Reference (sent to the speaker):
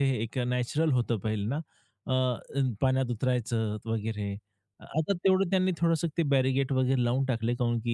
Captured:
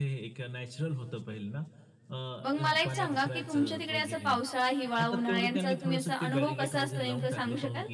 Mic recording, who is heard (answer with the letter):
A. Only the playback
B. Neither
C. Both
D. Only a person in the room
C